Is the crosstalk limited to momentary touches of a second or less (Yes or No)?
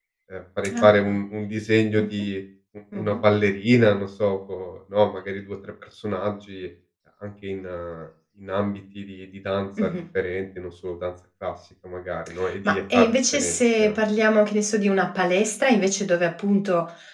No